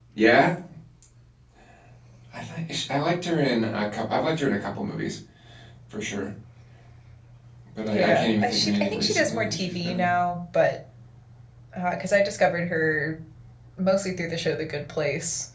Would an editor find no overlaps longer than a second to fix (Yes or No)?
No